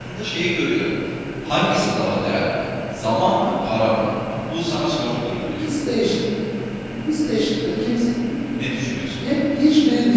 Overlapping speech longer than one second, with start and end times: none

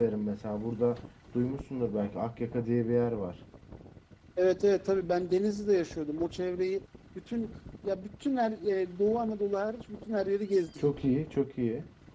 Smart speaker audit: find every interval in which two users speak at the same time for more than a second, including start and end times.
none

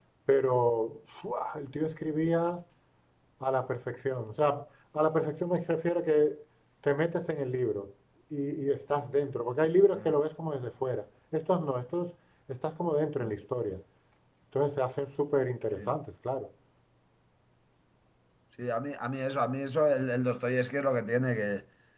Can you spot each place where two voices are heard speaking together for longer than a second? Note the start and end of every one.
none

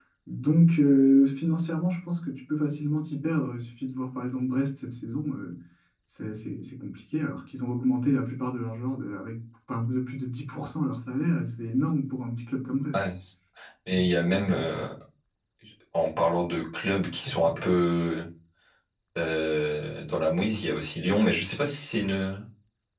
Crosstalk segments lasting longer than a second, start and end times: none

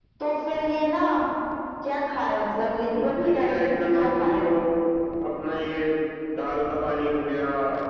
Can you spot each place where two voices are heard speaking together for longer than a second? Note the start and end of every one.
3.0-4.5

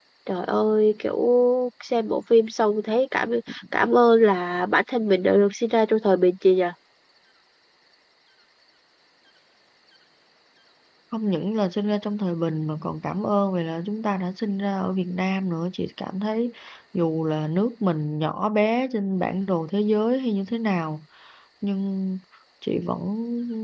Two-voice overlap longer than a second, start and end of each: none

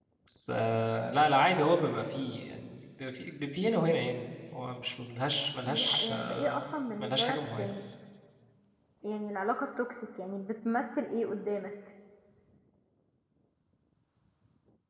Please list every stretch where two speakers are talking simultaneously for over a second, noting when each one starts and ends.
5.7-7.8

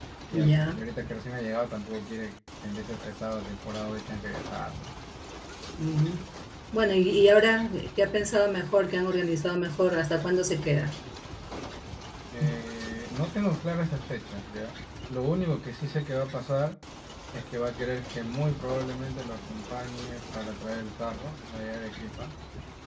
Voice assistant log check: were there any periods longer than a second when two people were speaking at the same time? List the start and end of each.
none

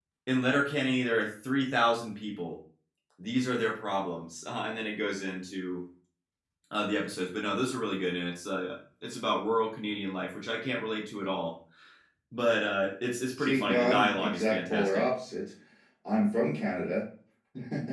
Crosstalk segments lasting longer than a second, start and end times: 13.4-15.1

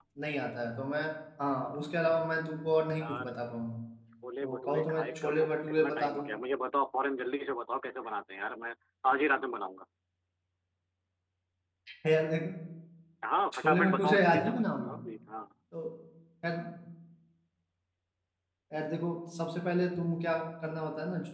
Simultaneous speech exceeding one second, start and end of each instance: 4.4-6.3, 13.5-14.9

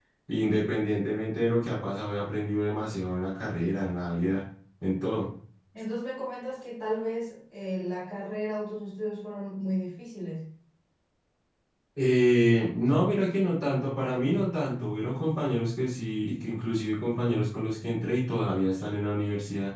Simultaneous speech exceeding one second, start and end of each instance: none

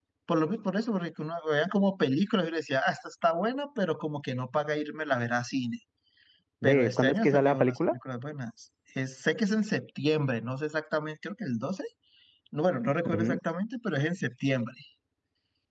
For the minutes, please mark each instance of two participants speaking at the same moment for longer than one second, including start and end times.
6.6-7.9

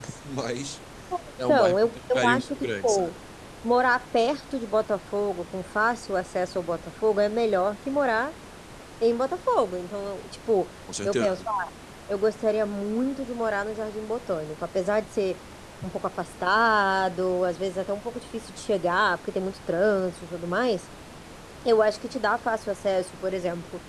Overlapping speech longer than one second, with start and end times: 1.5-3.1

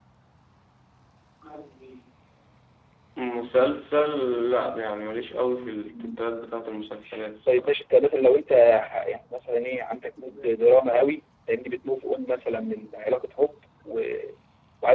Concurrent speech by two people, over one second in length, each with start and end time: none

